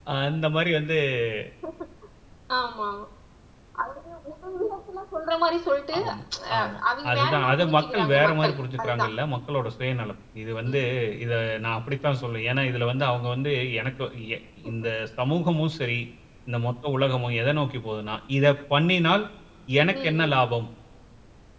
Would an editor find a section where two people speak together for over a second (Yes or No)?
Yes